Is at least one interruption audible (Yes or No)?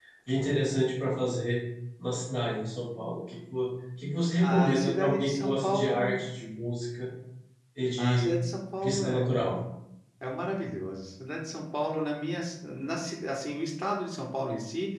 Yes